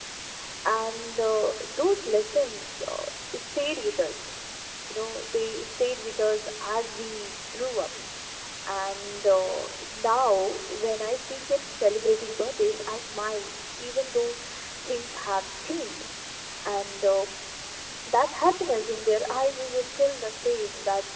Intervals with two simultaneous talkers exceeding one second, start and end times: none

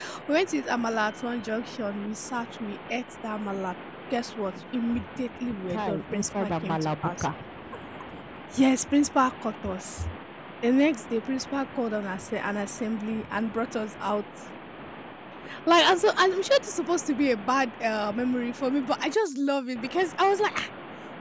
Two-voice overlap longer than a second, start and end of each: 5.7-7.2

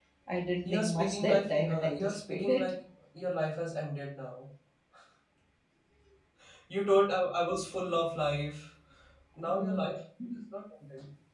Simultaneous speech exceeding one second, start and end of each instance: 0.6-2.7

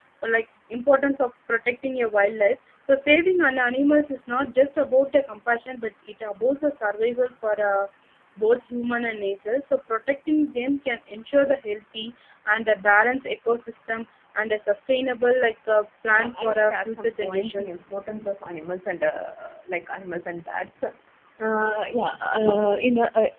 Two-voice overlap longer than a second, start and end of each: 16.1-17.8

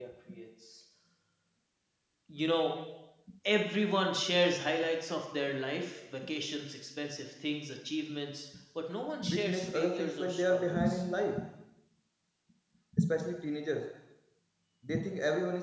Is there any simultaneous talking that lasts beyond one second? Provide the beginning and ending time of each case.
9.2-11.0

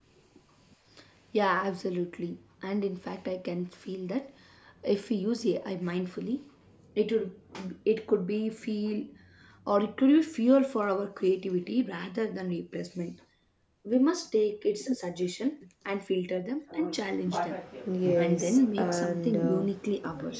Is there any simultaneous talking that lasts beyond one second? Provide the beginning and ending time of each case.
18.2-19.6

